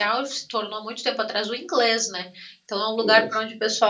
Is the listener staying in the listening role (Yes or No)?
Yes